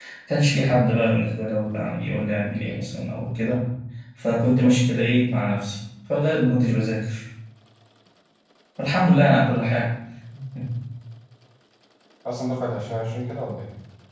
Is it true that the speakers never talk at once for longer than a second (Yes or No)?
Yes